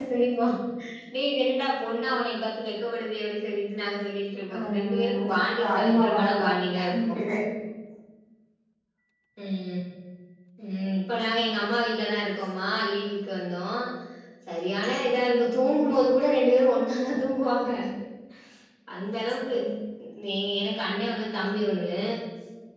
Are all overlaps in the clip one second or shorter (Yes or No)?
No